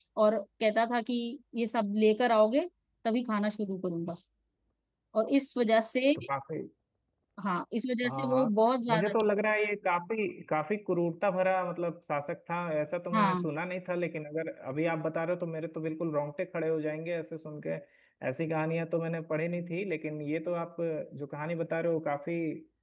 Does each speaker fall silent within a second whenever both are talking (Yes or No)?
Yes